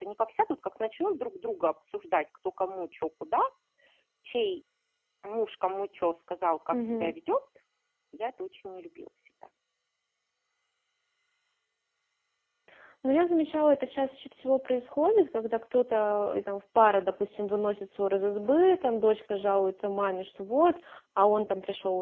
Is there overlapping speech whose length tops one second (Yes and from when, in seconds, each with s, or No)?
No